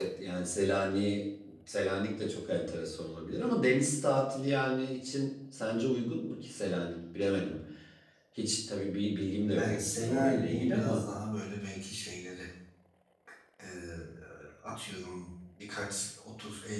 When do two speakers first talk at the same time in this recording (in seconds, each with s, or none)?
9.5 s